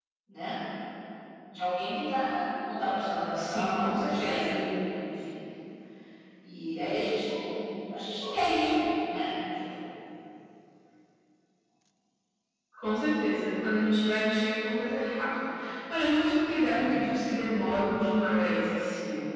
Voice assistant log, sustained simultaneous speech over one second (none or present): present